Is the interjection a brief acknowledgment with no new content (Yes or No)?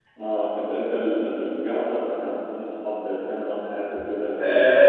No